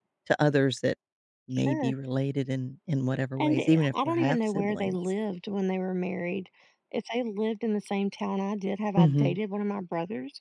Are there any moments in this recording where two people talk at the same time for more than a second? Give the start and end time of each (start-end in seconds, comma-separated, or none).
3.4-5.0